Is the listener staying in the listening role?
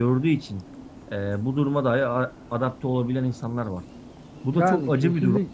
No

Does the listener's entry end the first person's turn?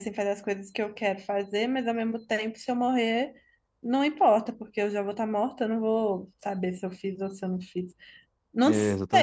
No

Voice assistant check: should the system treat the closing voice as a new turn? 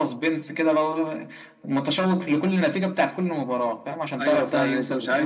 Yes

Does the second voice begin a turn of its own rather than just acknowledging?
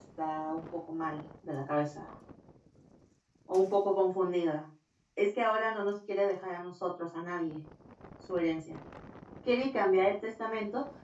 No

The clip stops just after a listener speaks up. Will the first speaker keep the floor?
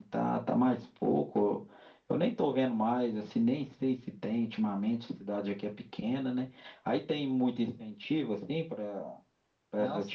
No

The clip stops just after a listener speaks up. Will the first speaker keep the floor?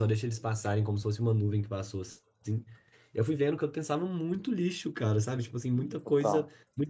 Yes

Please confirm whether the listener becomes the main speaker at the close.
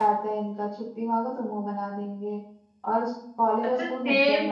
Yes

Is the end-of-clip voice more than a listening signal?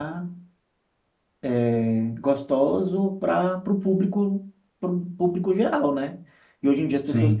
No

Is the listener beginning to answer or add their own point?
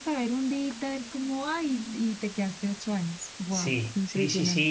Yes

